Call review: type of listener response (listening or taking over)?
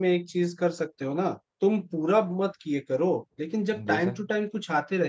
listening